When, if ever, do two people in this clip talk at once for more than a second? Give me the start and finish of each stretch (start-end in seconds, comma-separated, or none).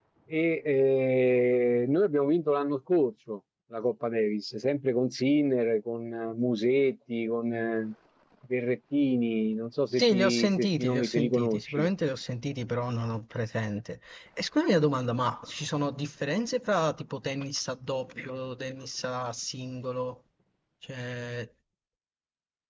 9.9-11.9